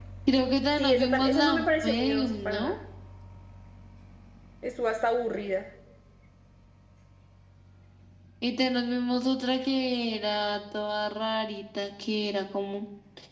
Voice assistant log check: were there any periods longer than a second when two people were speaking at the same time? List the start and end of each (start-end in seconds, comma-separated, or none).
0.8-2.8